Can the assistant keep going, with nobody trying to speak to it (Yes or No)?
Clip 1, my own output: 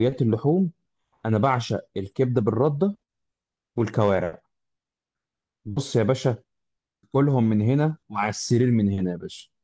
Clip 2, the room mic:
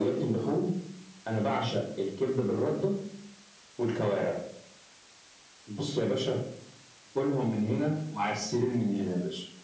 Yes